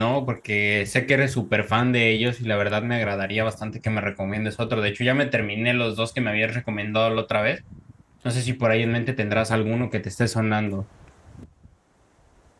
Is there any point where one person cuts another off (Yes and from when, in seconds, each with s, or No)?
No